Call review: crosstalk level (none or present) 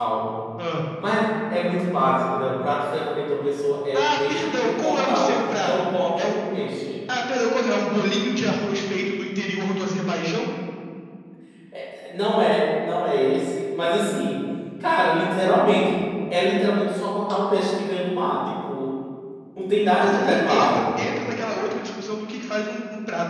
present